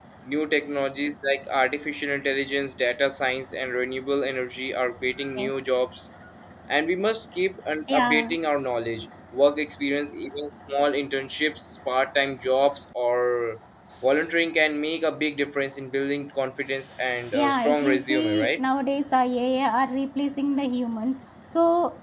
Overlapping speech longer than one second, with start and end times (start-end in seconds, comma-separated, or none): 17.3-18.6